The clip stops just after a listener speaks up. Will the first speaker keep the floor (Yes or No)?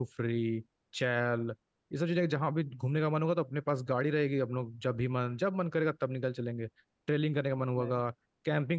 Yes